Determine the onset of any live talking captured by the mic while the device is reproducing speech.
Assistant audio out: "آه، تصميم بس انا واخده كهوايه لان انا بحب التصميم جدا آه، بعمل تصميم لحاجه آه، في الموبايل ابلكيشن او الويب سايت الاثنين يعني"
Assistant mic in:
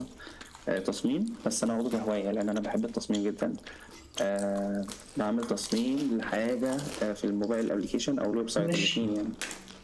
8.6 s

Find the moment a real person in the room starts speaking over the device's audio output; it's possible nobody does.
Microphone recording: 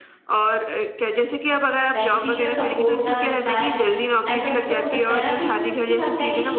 1.9 s

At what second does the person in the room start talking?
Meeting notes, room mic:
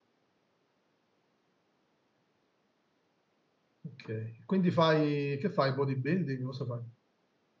3.8 s

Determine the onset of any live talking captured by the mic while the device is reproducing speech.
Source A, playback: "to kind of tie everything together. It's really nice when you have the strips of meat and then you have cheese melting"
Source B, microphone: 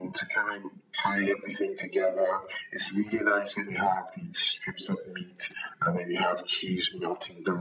none

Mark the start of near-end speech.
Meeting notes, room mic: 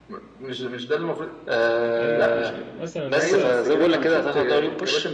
1.9 s

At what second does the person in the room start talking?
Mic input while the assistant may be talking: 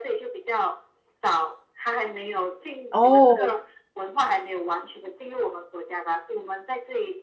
2.9 s

